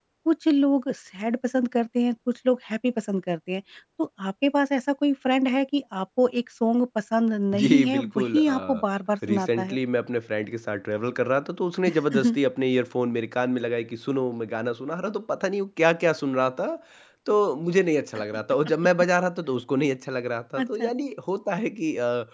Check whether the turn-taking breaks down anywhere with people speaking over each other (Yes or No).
Yes